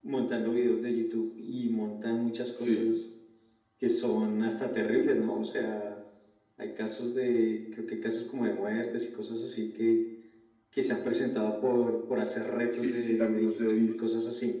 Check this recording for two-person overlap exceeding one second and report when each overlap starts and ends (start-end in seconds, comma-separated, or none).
12.7-14.0